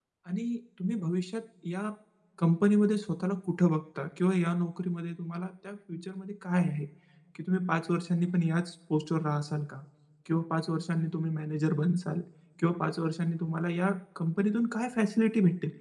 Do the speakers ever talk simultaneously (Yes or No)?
No